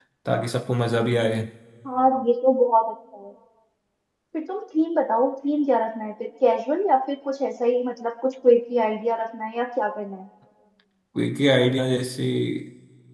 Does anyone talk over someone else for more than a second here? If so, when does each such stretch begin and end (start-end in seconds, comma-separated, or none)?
none